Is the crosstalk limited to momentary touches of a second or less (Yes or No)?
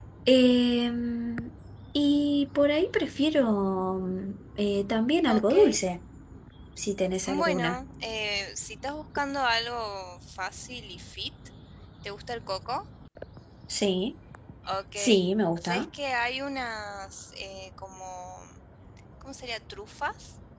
Yes